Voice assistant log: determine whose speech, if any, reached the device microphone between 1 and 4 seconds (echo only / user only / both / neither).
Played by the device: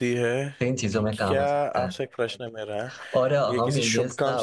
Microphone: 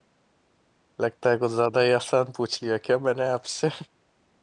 user only